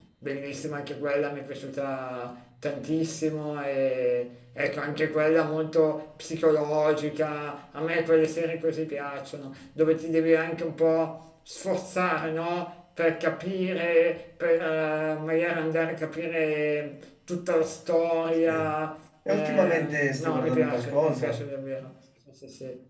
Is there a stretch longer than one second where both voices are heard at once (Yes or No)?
Yes